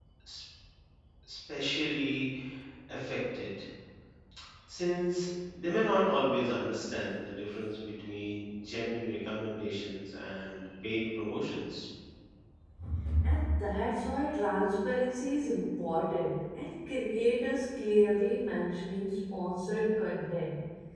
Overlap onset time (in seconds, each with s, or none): none